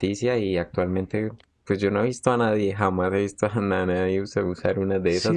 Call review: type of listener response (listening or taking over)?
taking over